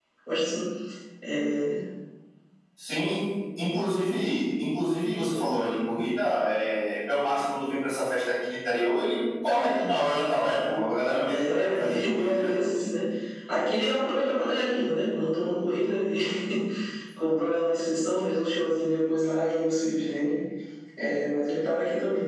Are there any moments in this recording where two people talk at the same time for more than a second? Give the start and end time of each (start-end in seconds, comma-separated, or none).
11.2-12.8